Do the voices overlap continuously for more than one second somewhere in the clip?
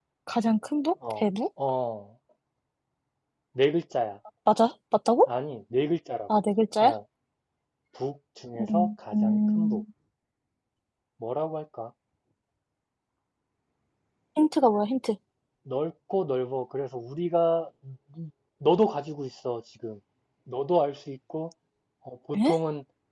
Yes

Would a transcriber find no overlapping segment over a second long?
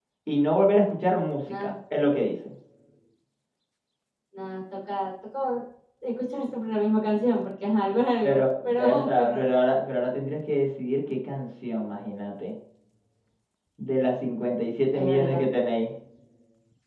No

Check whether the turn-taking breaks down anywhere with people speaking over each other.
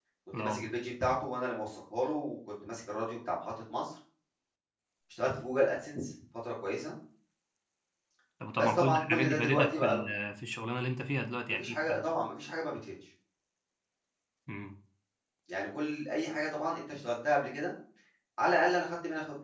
Yes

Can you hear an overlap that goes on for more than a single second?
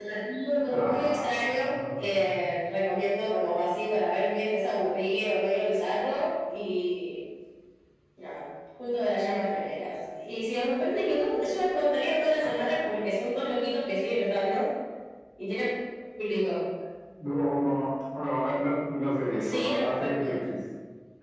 Yes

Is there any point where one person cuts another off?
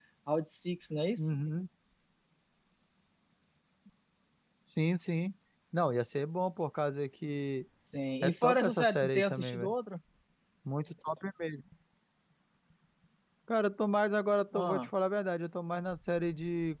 Yes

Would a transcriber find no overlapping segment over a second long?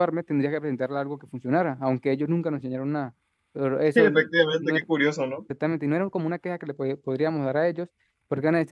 Yes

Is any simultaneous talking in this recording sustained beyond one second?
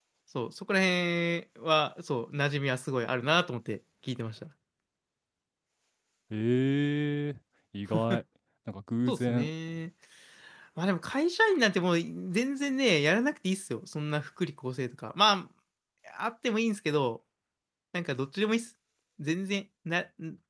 No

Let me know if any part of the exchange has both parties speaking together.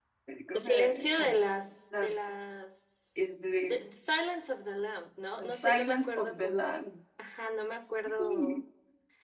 Yes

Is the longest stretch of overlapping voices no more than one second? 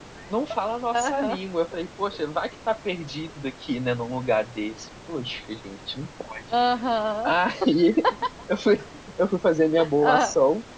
Yes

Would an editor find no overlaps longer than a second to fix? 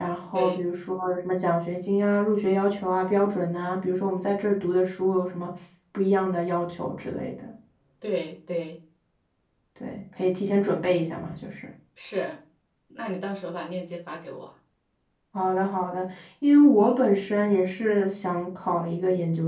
Yes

